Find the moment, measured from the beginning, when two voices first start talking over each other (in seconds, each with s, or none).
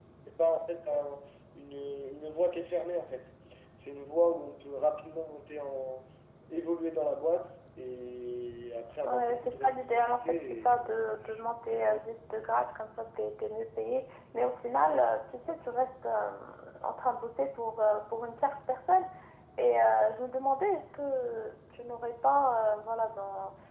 9.0 s